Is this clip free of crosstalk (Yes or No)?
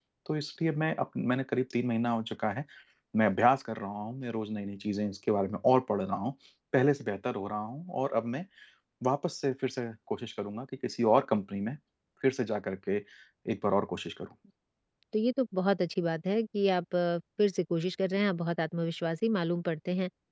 Yes